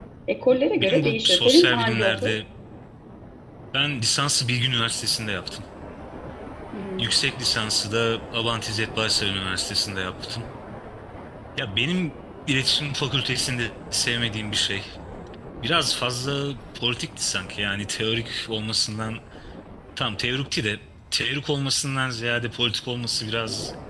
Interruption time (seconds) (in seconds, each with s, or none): 0.5 s